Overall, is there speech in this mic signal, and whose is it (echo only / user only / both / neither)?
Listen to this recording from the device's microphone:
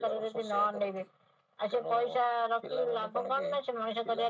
echo only